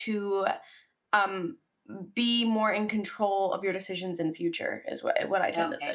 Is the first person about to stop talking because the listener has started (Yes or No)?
Yes